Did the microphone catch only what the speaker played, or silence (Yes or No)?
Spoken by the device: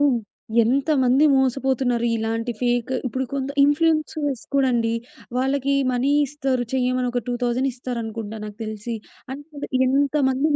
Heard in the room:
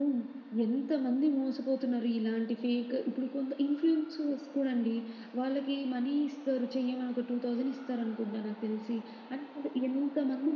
Yes